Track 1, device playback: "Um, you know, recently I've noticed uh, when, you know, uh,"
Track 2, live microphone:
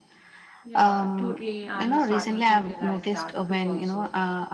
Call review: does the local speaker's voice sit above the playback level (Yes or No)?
No